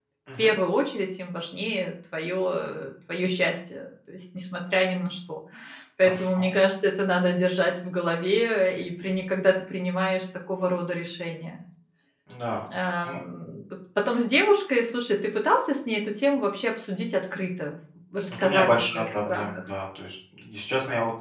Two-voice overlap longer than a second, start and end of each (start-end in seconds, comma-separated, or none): 18.3-19.6